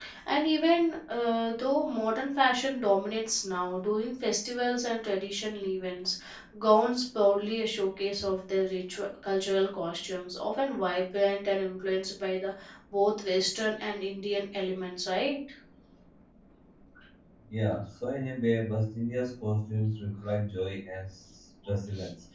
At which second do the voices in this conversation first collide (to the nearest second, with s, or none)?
none